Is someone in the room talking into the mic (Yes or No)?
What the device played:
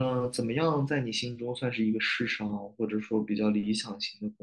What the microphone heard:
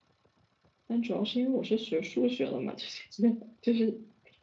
Yes